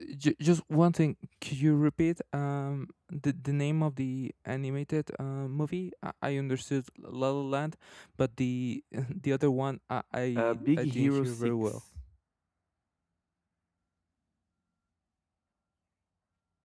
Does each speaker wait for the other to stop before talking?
No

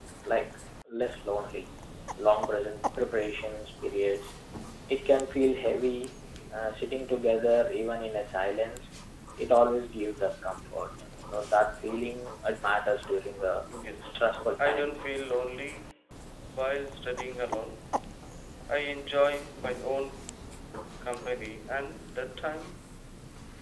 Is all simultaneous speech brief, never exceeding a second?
Yes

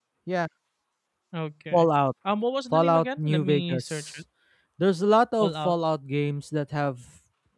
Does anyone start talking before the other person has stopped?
Yes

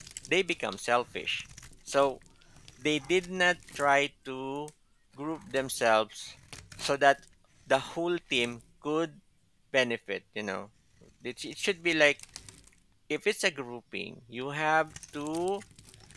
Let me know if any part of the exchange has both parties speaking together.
No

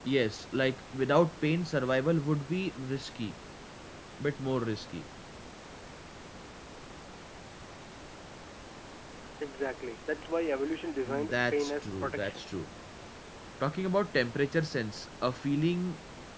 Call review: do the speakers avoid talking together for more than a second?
No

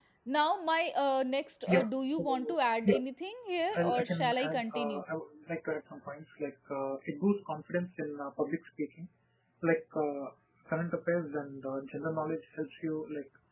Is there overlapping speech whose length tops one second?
Yes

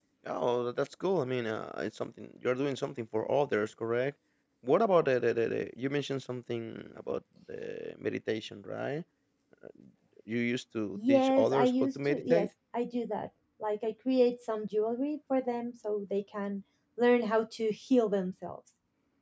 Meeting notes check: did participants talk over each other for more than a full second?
Yes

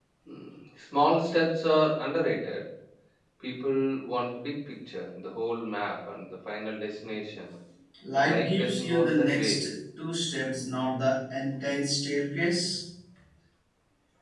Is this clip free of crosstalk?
No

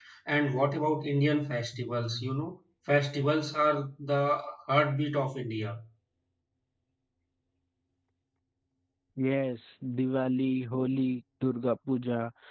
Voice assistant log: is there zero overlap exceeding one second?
Yes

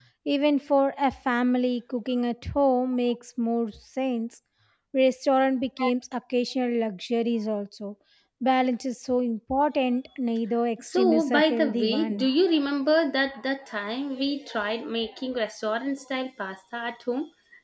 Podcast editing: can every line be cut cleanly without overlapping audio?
No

